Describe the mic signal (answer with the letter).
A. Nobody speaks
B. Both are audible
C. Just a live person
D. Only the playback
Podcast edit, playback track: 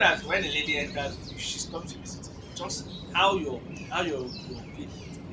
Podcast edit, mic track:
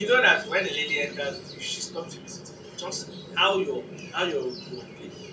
D